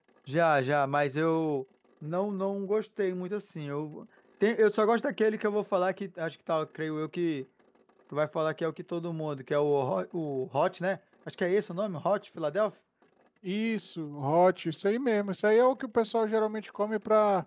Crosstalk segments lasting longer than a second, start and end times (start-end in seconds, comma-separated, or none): none